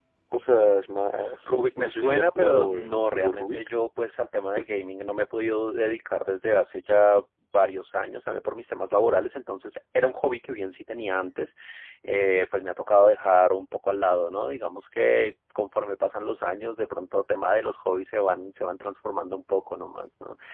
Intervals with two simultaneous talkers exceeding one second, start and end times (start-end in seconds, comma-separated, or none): 1.4-3.7